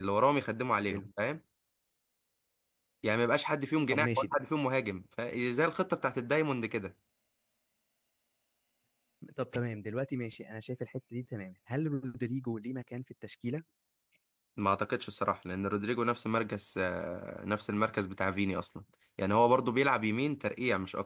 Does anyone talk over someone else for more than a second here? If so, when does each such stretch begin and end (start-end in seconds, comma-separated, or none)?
none